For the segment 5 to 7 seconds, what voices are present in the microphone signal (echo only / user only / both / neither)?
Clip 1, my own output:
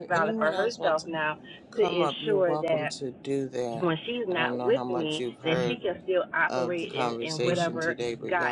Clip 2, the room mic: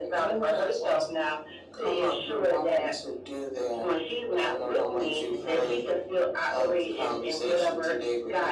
both